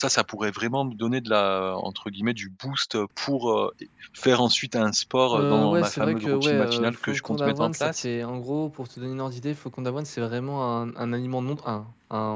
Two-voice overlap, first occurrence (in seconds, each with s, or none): 5.3 s